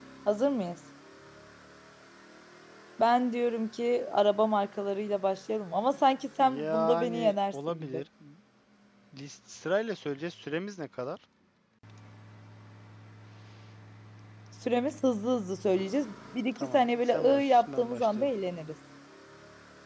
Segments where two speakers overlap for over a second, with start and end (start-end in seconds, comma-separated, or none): 6.4-8.0, 16.6-18.3